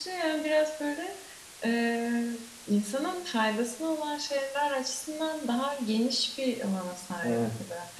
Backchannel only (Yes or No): No